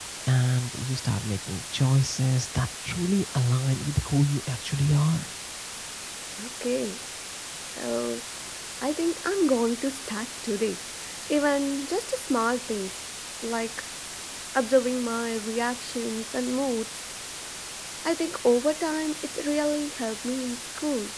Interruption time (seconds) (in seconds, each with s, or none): none